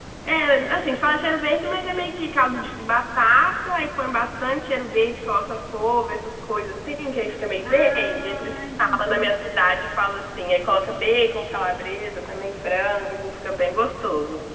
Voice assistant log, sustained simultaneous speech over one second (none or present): present